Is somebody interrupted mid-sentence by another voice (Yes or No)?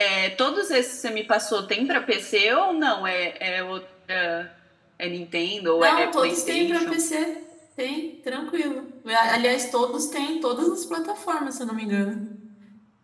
Yes